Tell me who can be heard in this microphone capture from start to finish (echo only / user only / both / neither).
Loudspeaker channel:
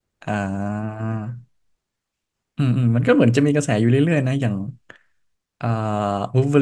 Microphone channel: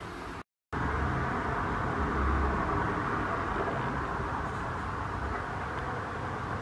neither